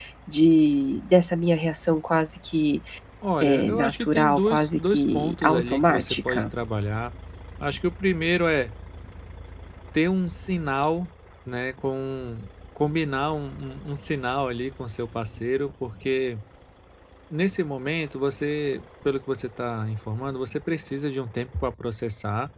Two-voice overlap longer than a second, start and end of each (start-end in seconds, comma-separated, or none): 3.4-6.4